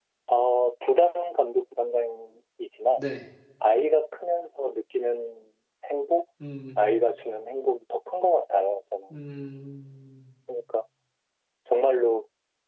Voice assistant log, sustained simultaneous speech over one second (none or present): none